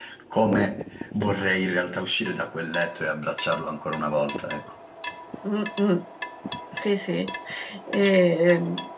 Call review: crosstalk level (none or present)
none